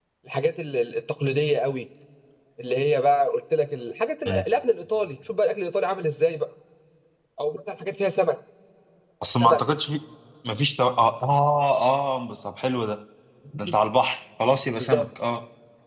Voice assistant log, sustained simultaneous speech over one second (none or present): none